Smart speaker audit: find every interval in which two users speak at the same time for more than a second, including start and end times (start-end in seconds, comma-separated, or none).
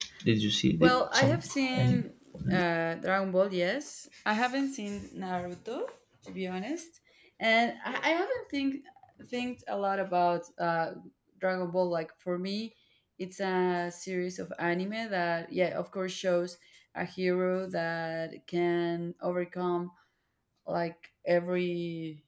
0.8-2.0